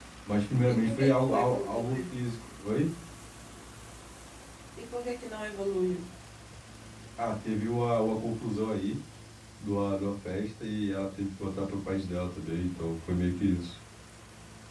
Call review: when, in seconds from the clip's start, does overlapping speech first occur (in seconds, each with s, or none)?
0.7 s